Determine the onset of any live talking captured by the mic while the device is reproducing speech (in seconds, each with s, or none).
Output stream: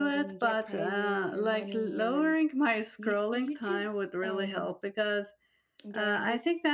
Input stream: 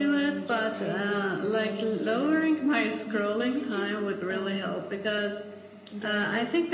none